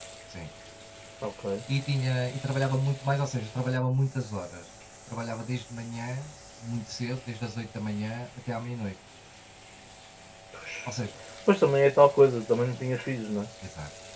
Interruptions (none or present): none